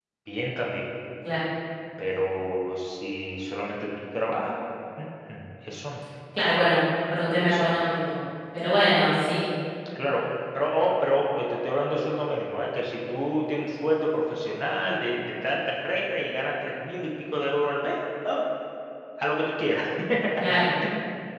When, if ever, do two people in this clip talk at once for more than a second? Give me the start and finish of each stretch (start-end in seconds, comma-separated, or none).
none